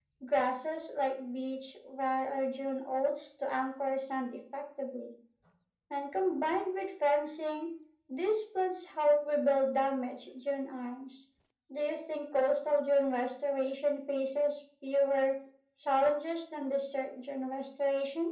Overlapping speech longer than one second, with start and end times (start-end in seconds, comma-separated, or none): none